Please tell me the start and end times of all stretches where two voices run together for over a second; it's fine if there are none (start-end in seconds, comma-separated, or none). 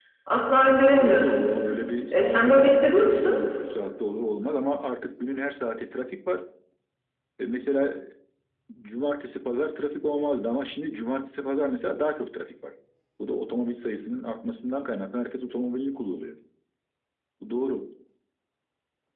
2.1-3.4